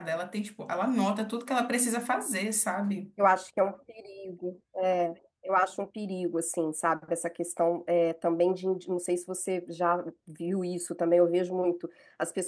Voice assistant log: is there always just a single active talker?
Yes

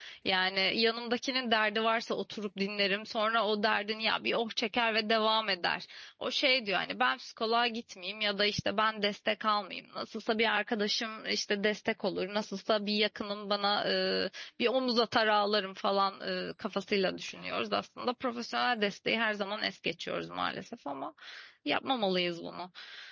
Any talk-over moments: No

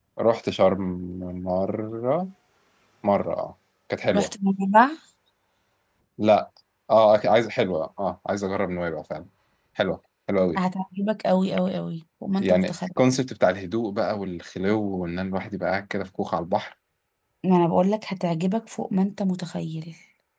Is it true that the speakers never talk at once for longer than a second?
Yes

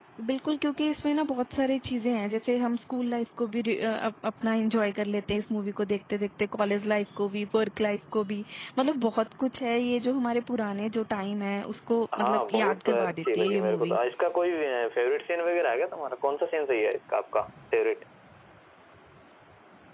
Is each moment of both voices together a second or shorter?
No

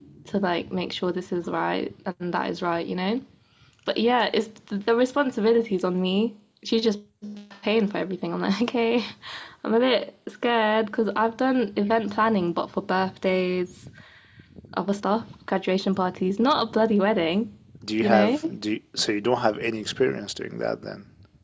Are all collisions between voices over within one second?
Yes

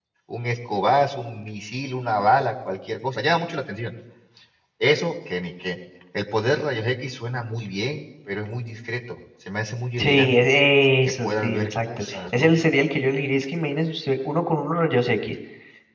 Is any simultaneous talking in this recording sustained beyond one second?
Yes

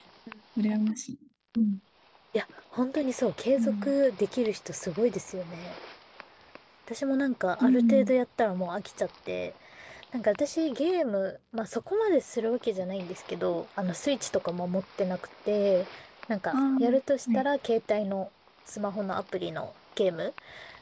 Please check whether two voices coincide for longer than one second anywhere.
No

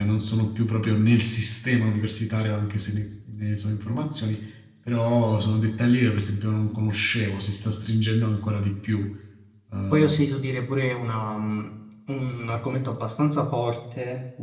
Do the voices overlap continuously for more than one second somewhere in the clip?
No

